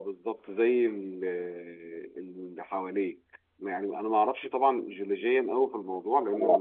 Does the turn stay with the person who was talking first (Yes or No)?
Yes